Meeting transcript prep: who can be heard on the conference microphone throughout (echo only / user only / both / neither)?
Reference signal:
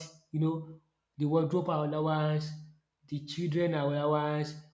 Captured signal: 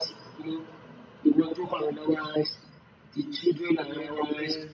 both